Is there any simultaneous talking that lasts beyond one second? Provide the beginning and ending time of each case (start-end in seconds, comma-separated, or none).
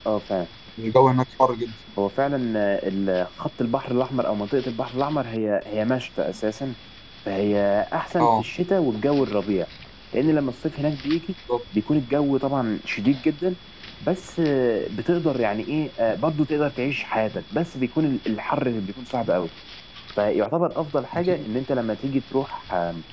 none